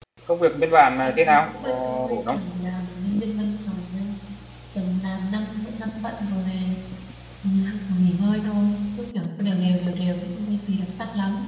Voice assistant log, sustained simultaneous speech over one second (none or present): present